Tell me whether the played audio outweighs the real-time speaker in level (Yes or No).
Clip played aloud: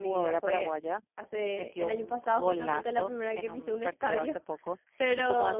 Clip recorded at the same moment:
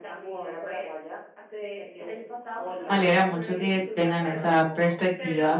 No